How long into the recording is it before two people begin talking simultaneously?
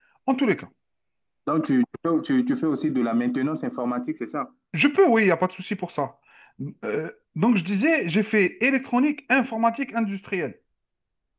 none

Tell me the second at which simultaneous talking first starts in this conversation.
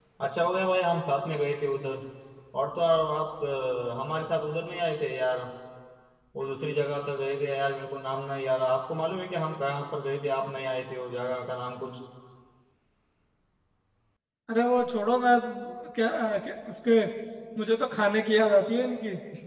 none

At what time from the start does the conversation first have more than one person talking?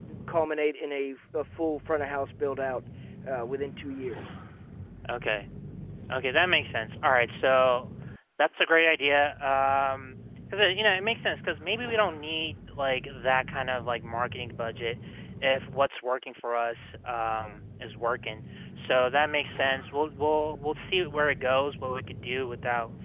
none

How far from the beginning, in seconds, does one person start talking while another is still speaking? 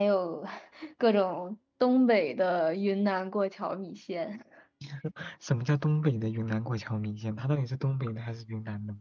none

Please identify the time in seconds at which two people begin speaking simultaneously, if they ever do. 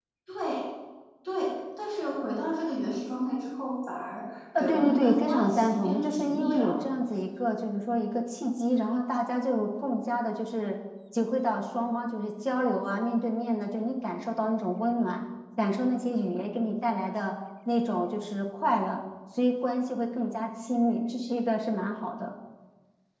4.5 s

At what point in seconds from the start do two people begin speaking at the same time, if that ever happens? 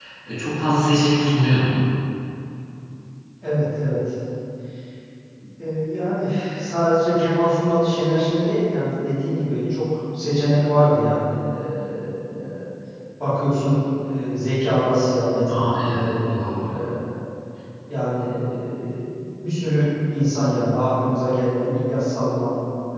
15.5 s

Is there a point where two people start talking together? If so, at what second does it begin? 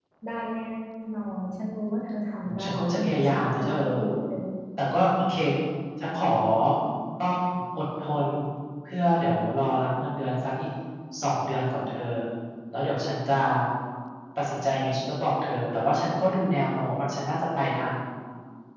2.4 s

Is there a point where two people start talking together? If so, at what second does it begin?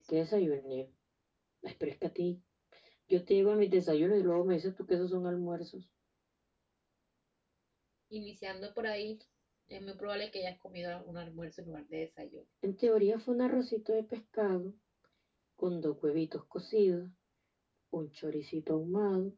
none

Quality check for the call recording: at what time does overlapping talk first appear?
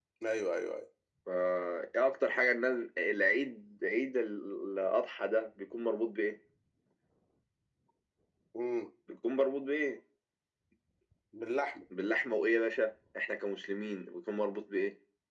none

